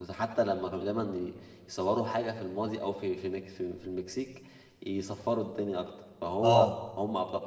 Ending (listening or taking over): listening